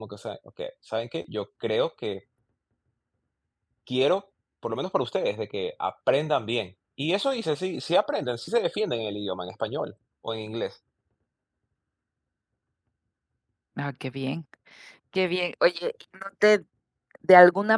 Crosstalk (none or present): none